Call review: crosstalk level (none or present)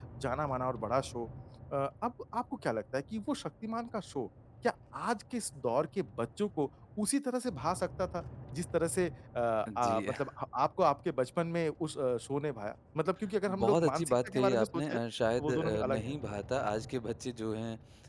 present